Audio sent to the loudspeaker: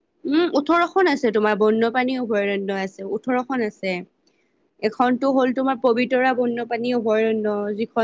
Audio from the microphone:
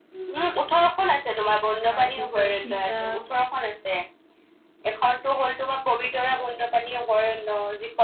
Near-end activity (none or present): present